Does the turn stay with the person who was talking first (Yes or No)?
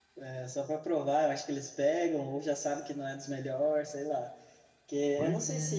Yes